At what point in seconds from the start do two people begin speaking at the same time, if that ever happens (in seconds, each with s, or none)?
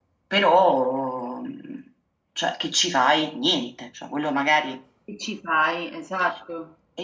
none